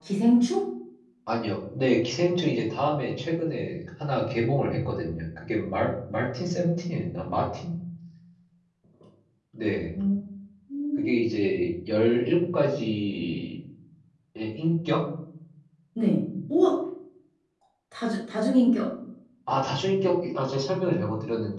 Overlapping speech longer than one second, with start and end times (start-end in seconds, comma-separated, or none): none